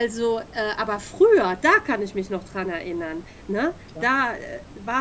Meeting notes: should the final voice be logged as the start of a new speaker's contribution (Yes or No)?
No